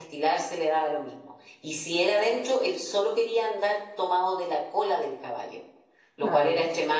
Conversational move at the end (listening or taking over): listening